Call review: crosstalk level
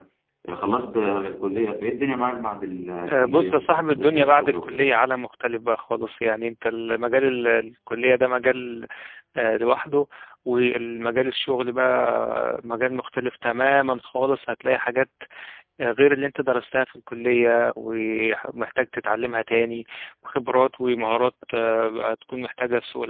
present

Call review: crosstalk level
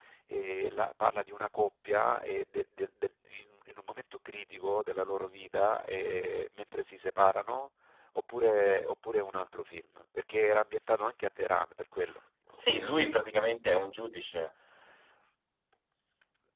none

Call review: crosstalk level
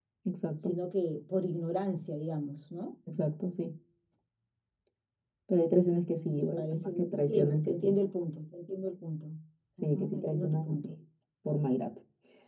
present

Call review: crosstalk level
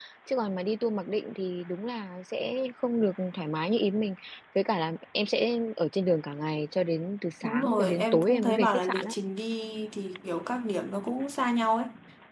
present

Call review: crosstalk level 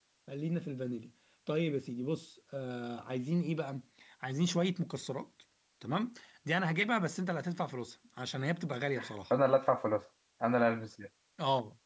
none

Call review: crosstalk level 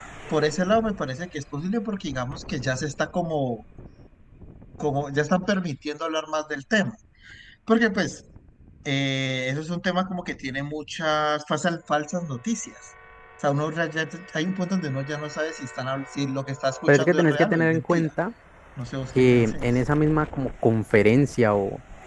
present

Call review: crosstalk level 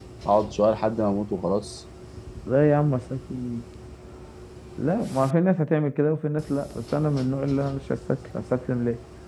none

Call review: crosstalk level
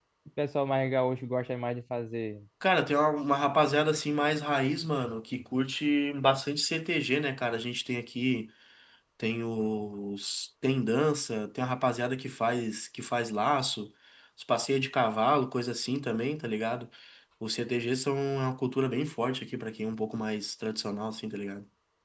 none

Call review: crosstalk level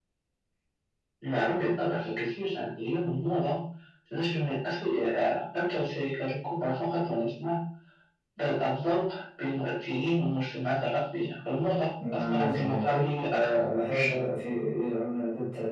present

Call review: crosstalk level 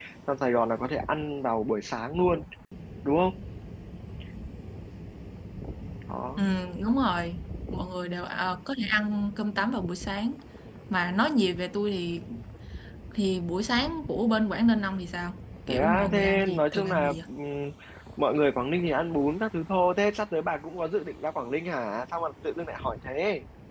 present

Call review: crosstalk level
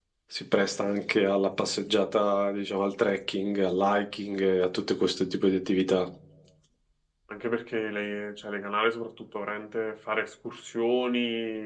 none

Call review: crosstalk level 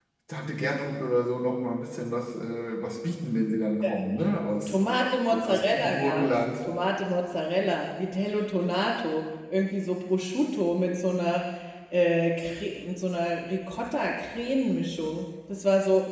present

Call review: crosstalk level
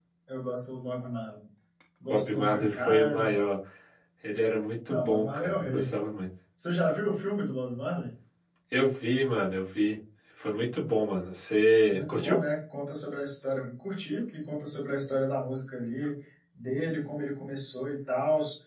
present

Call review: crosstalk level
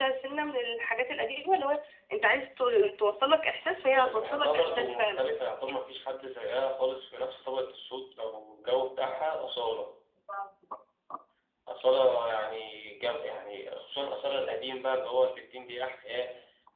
present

